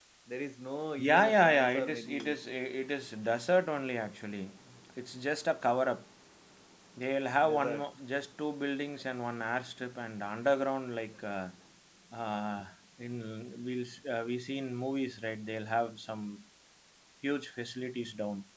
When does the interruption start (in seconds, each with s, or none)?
1.0 s